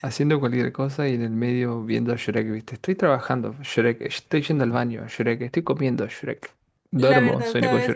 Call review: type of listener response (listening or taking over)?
taking over